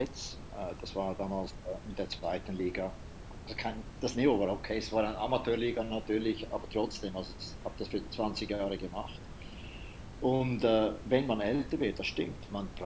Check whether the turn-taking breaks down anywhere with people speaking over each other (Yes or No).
No